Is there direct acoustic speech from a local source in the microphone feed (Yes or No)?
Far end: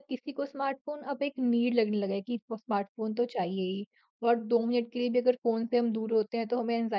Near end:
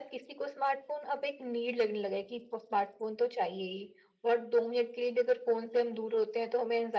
No